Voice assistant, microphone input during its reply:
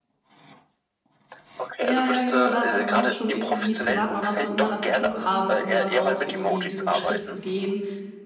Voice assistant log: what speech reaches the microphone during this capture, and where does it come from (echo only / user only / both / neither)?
both